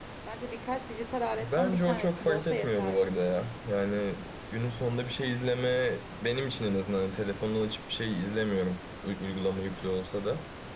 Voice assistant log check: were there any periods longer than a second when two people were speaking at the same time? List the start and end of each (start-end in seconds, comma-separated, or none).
1.3-3.1